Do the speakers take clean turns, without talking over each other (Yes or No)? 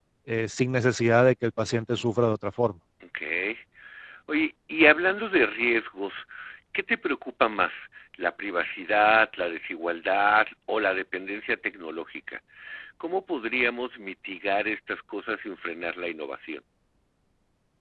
Yes